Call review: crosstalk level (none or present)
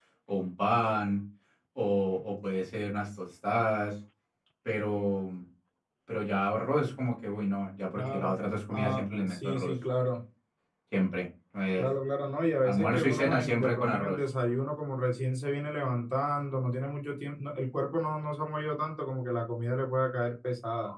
present